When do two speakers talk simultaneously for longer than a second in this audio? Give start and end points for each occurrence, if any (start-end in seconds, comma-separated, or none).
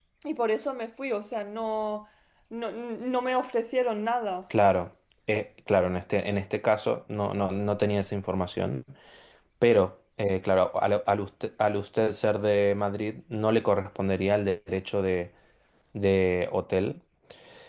none